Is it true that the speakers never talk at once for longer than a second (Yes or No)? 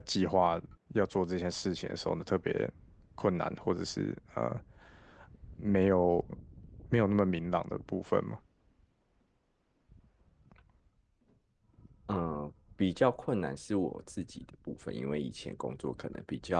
Yes